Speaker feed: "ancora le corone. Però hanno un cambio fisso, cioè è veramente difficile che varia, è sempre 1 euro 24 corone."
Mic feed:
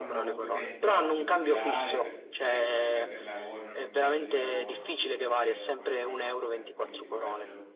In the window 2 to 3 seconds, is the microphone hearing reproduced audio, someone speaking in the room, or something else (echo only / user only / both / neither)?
both